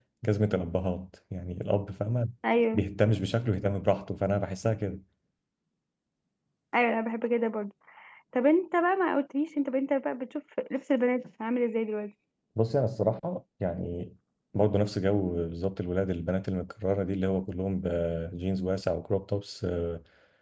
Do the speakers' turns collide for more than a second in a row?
No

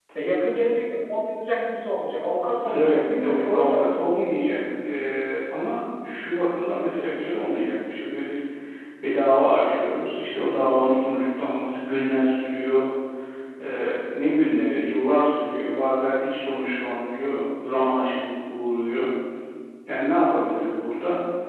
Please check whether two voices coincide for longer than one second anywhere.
Yes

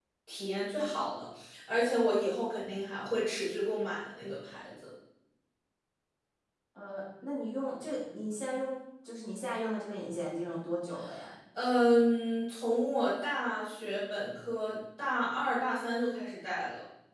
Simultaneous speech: No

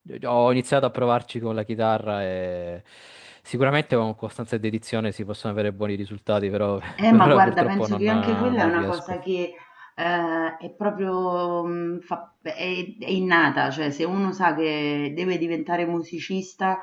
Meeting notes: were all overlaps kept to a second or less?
No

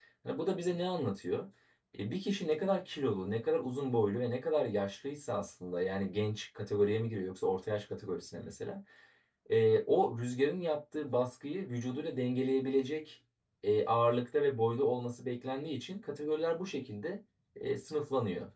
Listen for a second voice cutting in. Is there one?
No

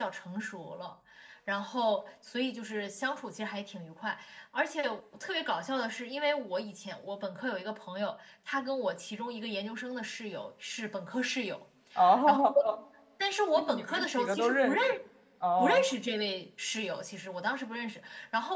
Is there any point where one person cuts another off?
Yes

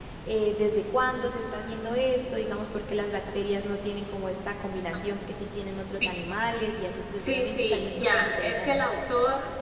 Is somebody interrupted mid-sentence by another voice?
Yes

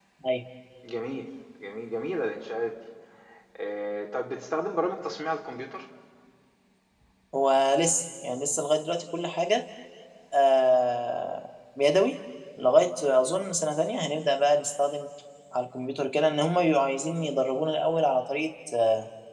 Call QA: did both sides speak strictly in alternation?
Yes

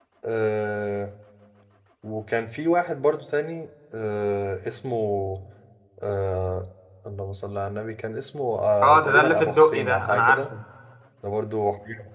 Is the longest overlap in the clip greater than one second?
Yes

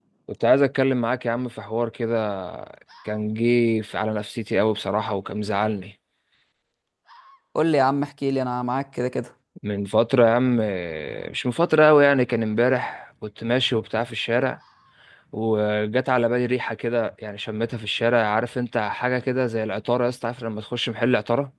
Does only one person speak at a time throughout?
Yes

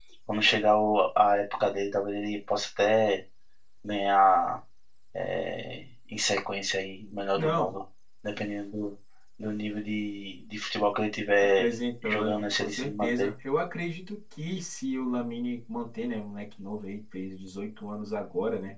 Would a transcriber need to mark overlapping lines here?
Yes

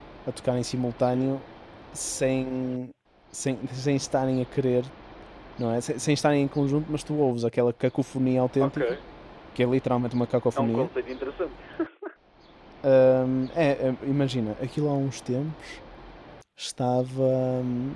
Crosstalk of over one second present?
No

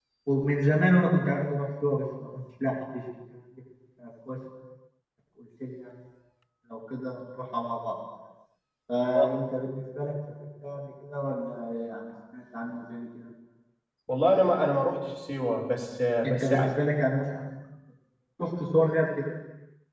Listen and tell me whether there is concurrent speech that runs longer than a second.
No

